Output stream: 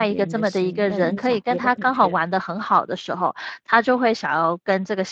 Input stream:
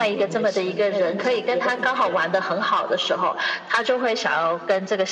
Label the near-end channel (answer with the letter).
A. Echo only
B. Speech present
A